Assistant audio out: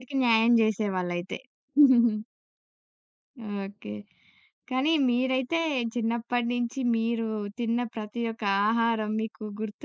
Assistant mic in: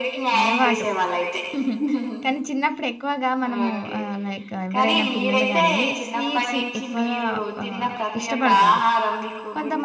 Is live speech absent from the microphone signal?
No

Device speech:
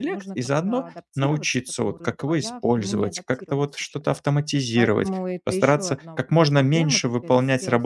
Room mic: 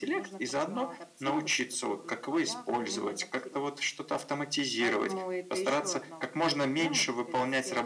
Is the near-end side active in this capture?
No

